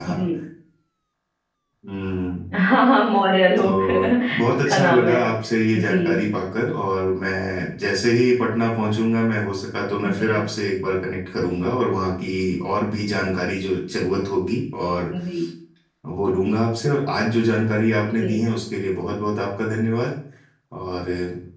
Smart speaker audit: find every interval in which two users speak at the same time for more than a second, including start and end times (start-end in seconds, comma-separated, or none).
3.6-5.2